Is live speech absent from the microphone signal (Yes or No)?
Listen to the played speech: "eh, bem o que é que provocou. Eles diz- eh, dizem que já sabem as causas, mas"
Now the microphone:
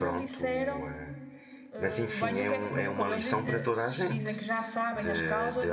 No